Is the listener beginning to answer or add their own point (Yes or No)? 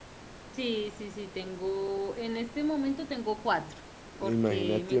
Yes